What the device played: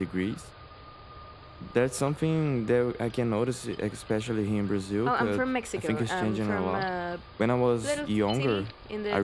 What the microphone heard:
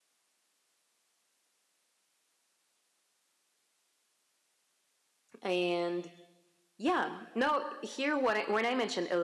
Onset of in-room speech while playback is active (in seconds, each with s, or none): 5.4 s